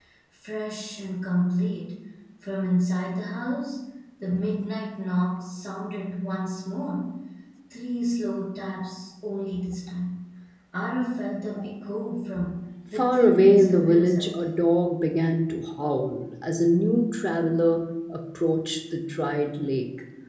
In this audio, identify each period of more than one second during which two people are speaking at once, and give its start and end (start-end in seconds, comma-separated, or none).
12.9-14.3